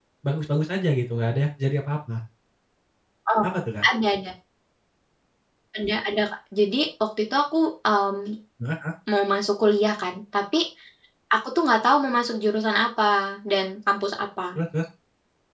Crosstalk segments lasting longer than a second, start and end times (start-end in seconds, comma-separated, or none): none